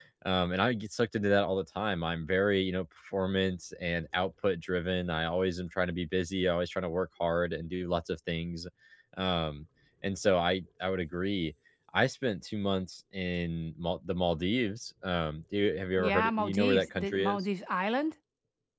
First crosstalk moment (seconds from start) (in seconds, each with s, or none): 16.0 s